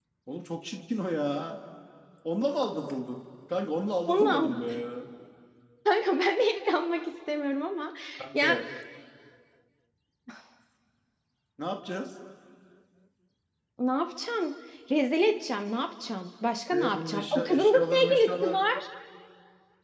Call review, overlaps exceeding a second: present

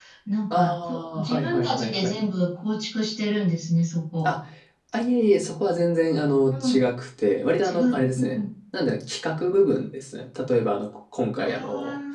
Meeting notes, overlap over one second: present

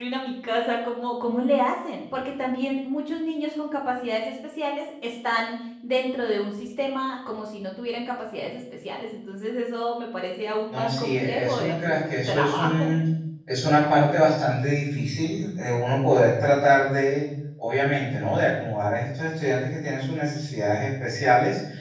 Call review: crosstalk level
present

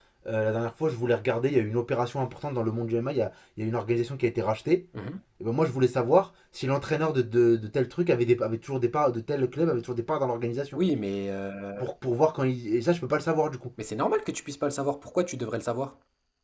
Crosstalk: none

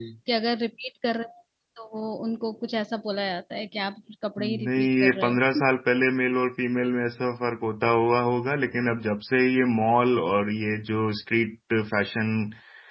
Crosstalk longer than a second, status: present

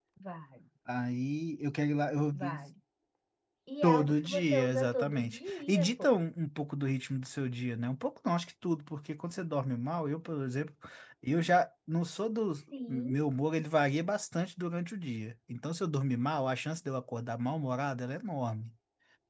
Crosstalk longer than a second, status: present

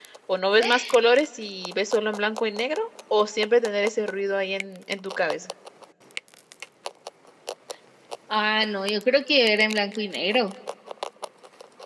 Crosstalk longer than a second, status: none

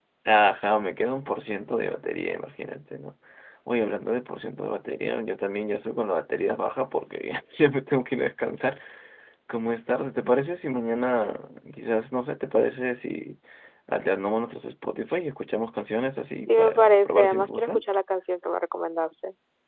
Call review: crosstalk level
present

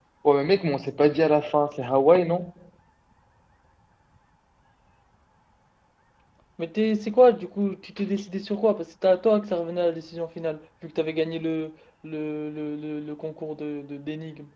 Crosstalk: none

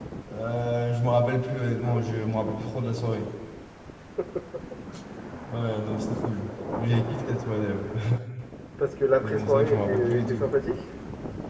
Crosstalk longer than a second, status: present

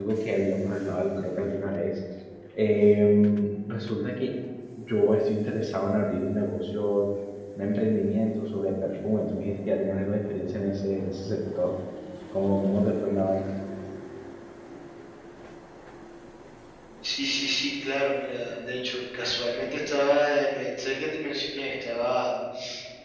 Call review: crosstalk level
none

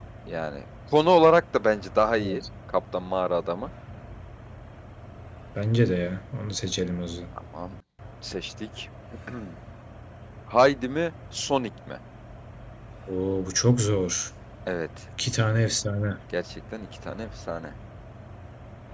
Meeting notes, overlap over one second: none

